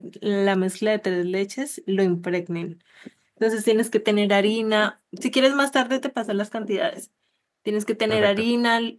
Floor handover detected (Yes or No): No